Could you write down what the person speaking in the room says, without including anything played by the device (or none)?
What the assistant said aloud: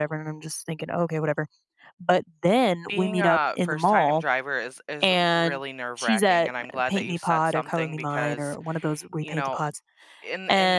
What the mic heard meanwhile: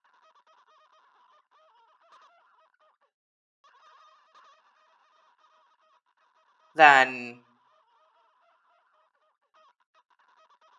then